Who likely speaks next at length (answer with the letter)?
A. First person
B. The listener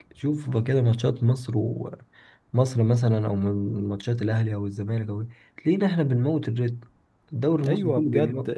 B